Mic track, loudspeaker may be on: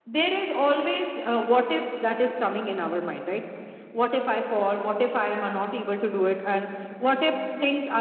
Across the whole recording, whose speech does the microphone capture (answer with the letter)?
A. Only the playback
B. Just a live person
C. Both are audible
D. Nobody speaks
A